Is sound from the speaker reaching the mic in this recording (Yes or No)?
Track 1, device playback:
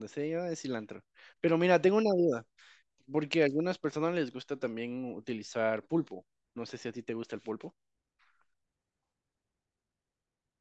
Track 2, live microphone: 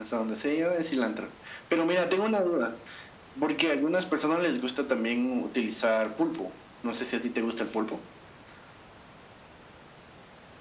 Yes